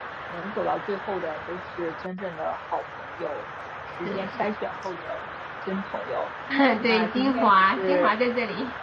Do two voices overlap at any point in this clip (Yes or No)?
Yes